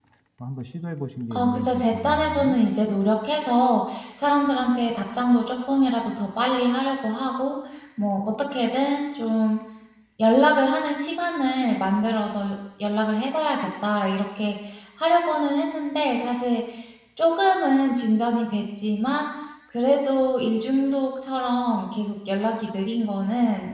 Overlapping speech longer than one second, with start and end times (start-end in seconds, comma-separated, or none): 1.3-2.6